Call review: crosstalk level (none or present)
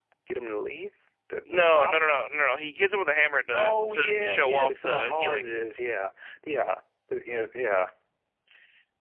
present